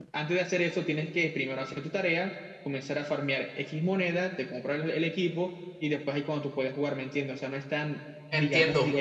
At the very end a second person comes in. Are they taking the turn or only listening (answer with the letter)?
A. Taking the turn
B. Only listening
A